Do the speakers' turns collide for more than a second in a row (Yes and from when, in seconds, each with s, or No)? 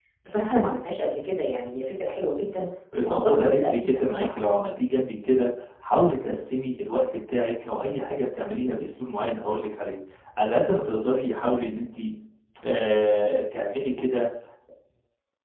Yes, from 2.9 s